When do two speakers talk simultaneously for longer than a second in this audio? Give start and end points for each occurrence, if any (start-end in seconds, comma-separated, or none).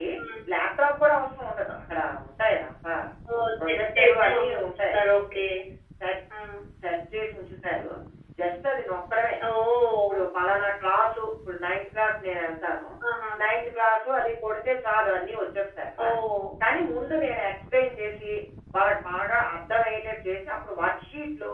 3.7-5.0